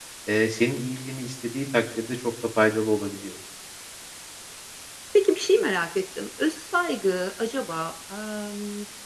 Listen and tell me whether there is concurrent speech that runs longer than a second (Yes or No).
No